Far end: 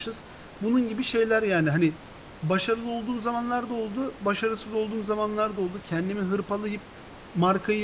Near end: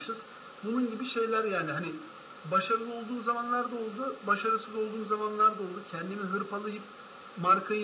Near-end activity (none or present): none